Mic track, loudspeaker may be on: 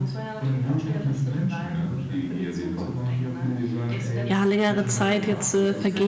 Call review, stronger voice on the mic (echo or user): user